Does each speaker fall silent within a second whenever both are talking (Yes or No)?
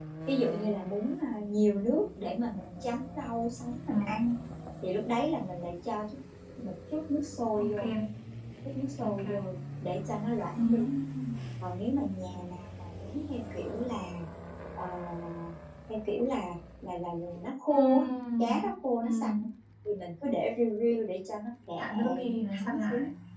No